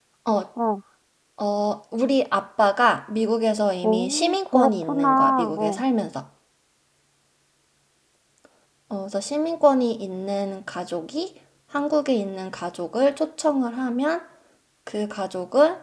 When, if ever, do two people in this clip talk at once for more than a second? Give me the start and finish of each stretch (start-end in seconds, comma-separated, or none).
3.8-5.8